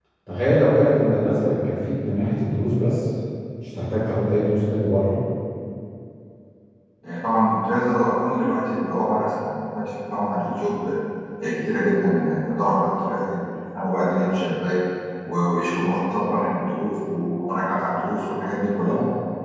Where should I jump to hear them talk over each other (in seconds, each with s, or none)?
none